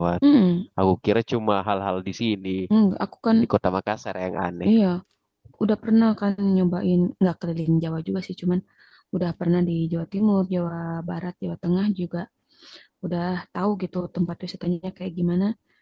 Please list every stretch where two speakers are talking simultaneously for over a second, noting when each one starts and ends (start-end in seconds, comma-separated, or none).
none